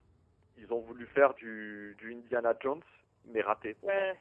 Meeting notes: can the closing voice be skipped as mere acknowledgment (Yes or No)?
No